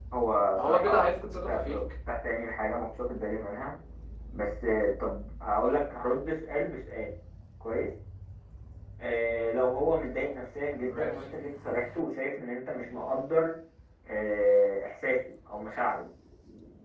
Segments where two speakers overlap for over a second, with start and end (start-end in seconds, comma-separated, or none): 0.5-1.8